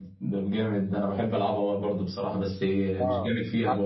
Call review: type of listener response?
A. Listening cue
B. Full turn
B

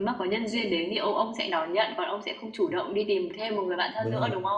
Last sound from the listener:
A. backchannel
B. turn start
B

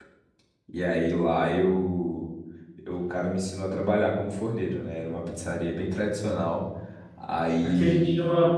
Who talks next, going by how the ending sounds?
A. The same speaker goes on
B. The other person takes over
B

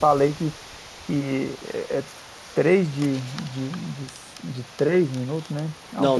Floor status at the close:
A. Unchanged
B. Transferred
B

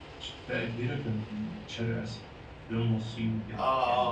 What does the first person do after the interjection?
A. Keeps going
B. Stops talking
B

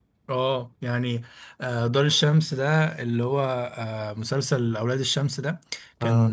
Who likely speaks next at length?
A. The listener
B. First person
B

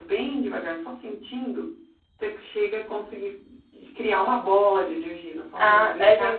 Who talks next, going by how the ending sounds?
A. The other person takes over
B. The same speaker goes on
A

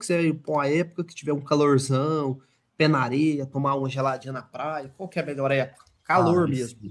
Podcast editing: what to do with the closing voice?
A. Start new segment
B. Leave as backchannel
A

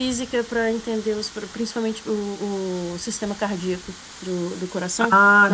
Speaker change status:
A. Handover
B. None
B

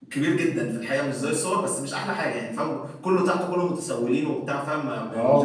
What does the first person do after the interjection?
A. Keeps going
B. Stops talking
B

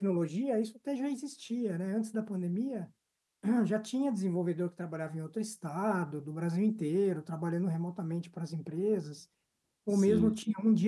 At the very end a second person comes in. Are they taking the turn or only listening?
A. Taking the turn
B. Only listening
B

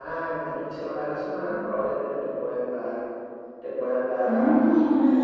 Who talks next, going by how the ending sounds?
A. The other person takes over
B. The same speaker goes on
A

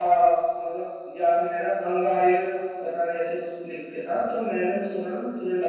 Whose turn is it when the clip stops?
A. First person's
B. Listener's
B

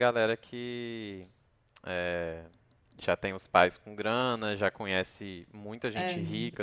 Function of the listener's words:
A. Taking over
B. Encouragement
B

